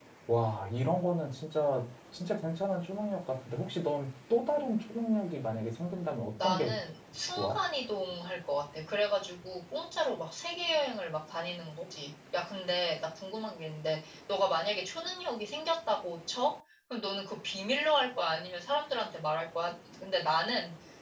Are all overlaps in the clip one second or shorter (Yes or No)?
Yes